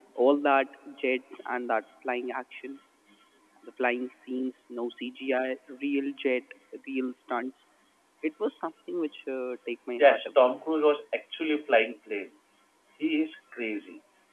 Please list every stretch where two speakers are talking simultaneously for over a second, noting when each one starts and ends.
none

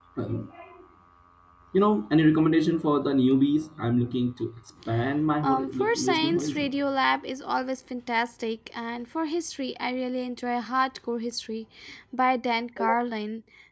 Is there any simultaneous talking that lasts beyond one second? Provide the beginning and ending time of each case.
5.4-6.7

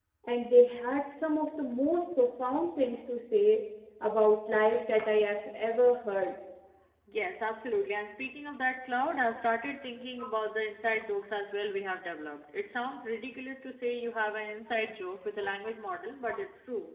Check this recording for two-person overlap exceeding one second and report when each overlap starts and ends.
none

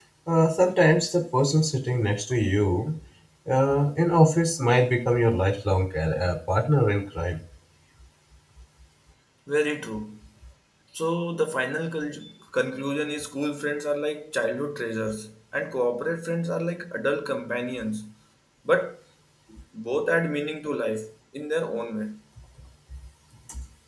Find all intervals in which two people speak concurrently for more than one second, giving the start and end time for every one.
none

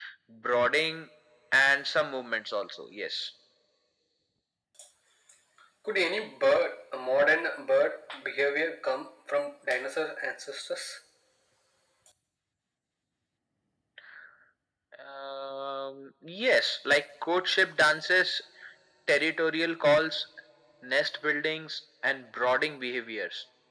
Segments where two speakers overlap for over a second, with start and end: none

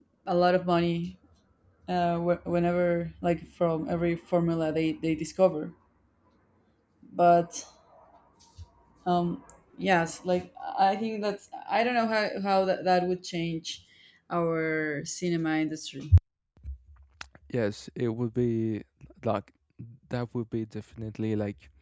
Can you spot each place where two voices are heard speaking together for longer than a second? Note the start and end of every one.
none

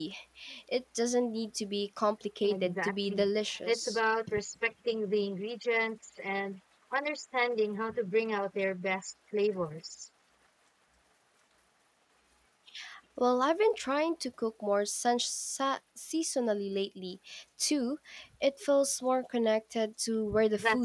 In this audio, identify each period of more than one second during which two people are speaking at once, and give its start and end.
2.4-4.0

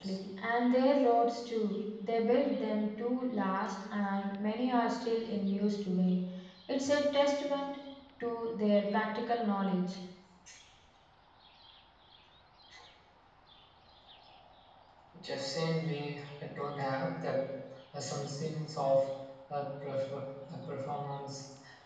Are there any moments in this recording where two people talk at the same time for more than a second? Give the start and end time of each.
none

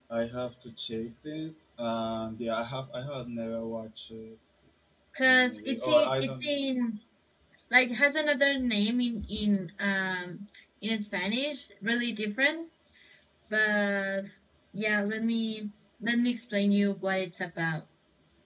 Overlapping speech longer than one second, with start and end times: 5.2-6.6

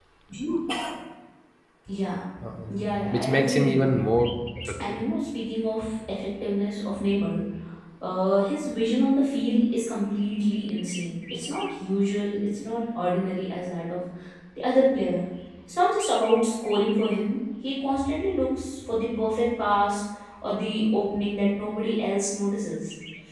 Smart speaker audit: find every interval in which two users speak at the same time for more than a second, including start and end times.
2.7-4.0

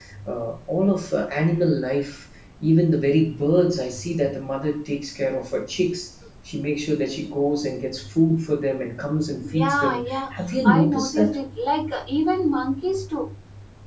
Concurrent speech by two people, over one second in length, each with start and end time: 9.4-11.4

